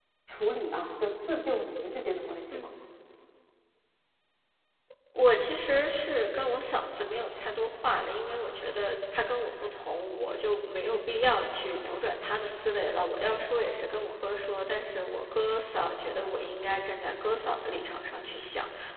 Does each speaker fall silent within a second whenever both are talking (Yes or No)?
Yes